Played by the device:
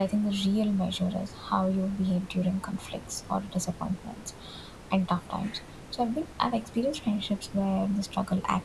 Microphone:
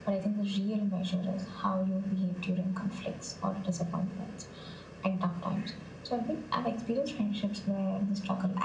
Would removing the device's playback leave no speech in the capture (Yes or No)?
Yes